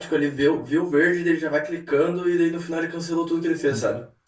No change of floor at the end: No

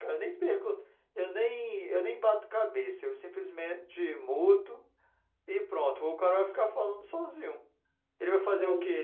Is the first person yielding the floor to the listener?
No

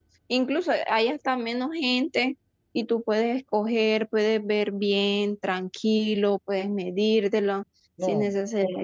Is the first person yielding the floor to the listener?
No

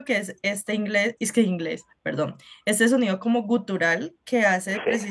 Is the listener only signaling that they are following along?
Yes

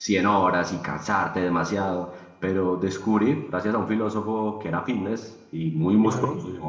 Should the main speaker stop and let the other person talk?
No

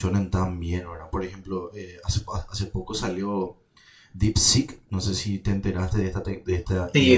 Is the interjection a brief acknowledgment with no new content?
No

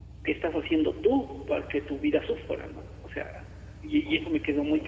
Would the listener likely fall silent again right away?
Yes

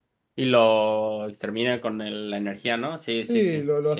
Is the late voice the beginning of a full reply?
Yes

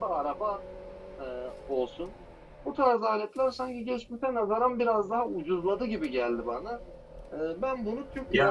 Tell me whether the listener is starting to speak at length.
No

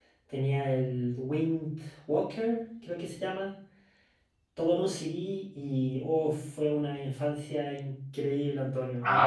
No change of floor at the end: No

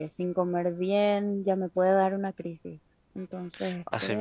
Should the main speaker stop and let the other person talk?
Yes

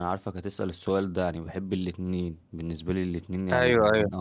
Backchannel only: Yes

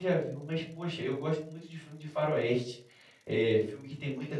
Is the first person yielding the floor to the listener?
No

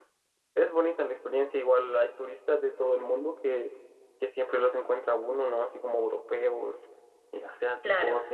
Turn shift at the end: No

